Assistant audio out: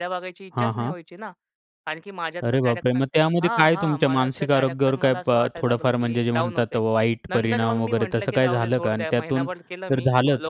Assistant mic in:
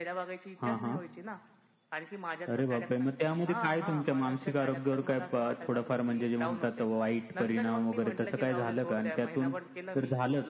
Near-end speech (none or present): none